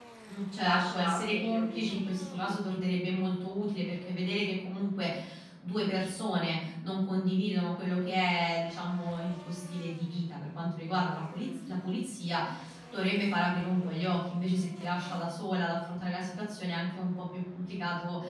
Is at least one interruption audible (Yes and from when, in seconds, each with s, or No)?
Yes, from 0.6 s